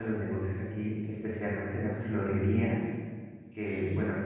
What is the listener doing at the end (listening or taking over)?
listening